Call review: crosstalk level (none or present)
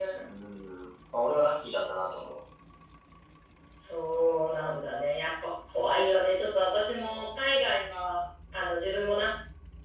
none